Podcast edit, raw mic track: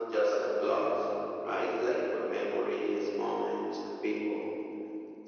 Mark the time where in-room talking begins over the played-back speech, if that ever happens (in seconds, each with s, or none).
none